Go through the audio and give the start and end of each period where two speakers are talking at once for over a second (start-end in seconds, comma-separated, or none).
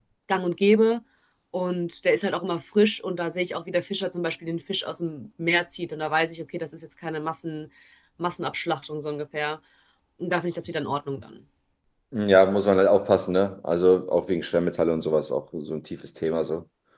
none